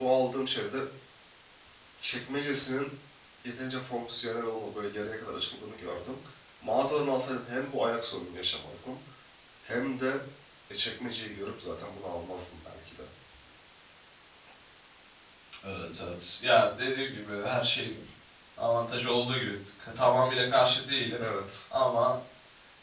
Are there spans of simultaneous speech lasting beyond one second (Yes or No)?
No